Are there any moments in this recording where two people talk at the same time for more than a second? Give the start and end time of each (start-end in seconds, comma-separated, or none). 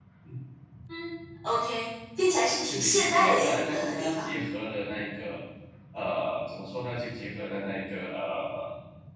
2.7-4.3